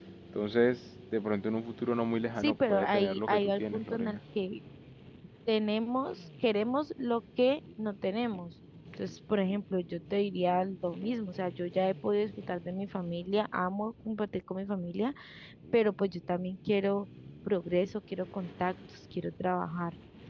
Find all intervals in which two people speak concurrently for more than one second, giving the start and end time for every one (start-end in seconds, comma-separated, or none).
2.4-4.2